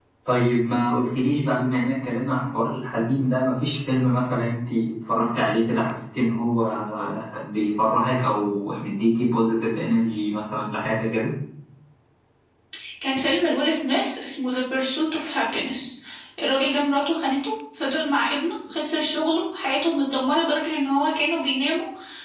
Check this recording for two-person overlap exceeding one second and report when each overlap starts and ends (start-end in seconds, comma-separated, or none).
none